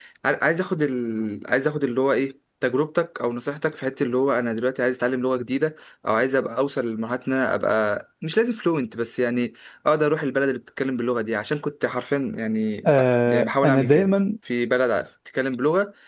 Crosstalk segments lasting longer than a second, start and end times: 12.9-14.1

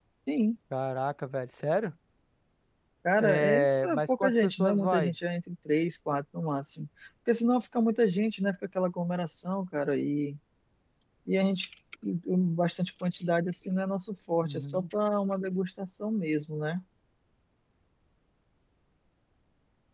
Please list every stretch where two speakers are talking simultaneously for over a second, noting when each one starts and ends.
3.2-5.2

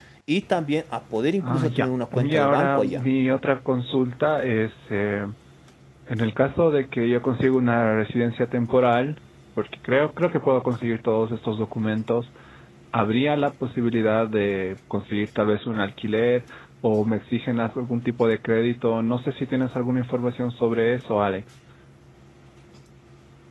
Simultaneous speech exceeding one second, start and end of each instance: 1.4-3.0

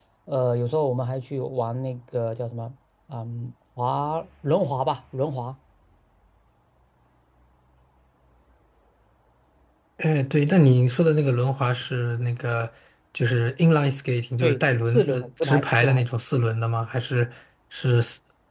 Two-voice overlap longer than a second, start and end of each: 14.4-16.1

